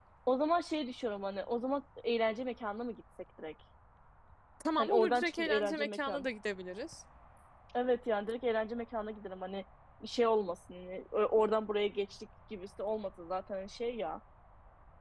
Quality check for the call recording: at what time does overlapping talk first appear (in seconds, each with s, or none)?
4.8 s